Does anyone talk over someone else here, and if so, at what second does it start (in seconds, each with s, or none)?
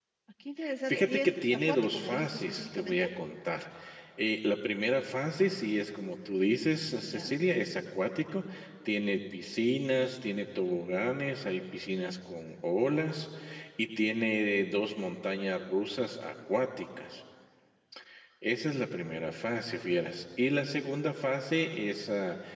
0.9 s